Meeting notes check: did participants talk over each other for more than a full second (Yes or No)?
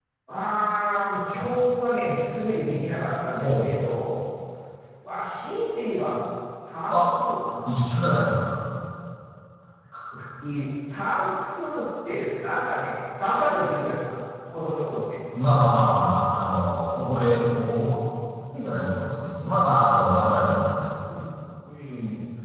No